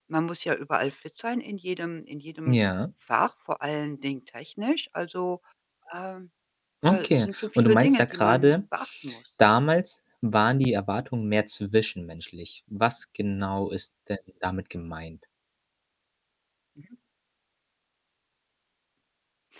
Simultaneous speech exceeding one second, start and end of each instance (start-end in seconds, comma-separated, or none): 6.9-8.5